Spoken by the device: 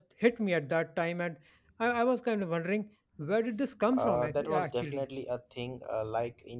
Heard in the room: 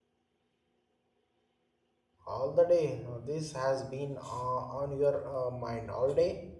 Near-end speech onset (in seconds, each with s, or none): 2.3 s